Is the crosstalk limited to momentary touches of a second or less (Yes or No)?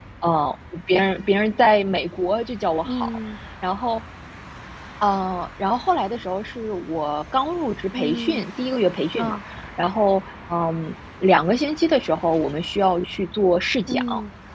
Yes